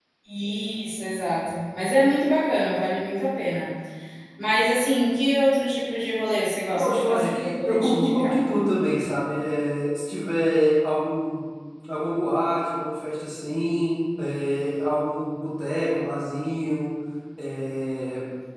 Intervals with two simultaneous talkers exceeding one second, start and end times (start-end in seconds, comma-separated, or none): 6.8-8.3